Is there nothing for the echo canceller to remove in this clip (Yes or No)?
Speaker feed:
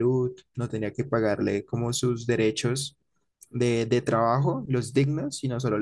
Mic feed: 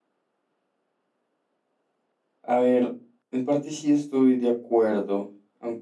Yes